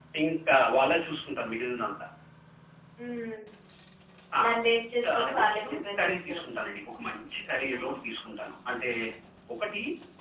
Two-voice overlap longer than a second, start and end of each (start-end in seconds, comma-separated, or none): 5.2-6.4